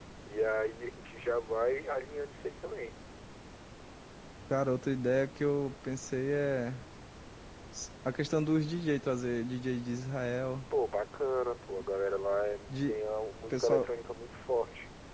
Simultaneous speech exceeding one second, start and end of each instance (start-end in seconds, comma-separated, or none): none